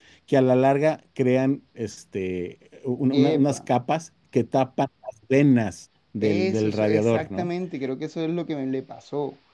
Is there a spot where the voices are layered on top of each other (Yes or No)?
Yes